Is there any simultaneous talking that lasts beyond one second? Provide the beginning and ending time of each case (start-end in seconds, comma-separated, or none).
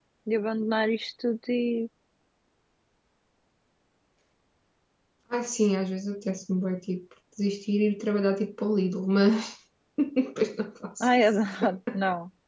none